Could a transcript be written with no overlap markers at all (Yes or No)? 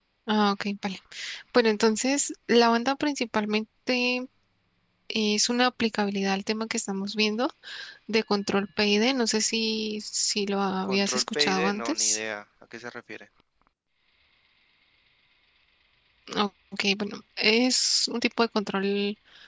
No